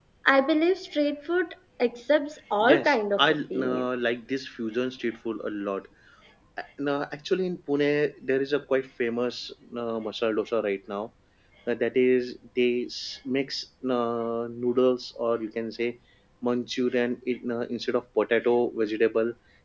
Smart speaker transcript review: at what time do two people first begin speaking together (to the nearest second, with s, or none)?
3 s